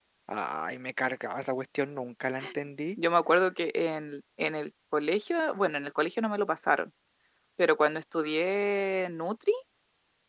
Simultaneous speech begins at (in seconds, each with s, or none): none